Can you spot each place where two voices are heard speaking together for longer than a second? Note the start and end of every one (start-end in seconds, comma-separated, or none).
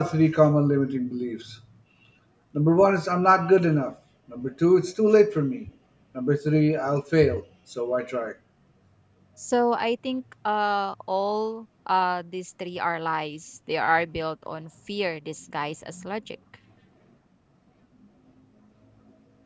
none